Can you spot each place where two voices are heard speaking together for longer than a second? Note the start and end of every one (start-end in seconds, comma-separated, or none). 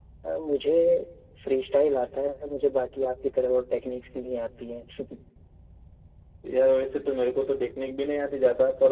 none